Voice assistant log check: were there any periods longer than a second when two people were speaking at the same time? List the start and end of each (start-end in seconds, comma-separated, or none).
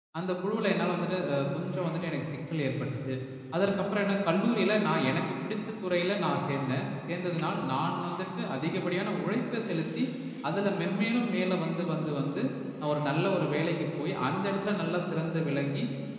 none